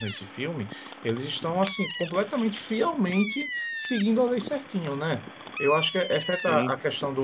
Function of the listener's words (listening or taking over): listening